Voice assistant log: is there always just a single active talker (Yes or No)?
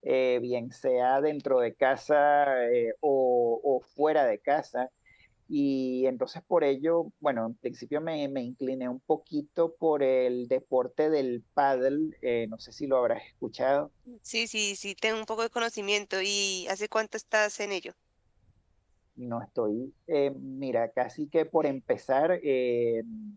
Yes